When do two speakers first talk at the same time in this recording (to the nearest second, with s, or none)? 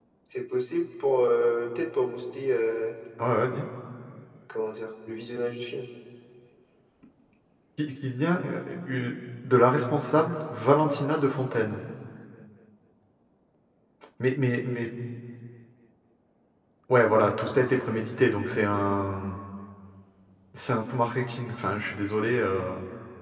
none